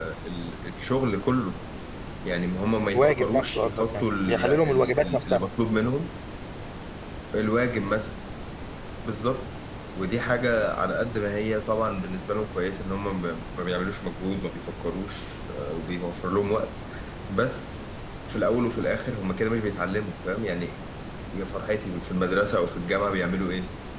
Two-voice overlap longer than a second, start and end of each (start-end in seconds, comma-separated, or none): 2.9-5.5